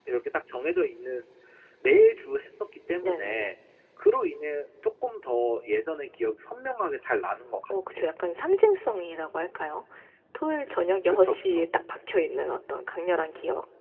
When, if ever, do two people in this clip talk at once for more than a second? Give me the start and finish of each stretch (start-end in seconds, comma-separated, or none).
none